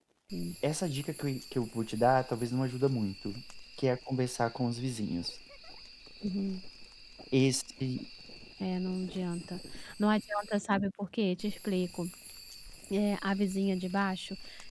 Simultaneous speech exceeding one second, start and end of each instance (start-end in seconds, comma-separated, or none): none